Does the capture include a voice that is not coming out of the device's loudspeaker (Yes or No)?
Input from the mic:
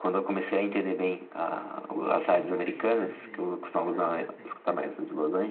Yes